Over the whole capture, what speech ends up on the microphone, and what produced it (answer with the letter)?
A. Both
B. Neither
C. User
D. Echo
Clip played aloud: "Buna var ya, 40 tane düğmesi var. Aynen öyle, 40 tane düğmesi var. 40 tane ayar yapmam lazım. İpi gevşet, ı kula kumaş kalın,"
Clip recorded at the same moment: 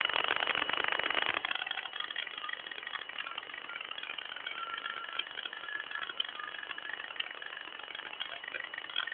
B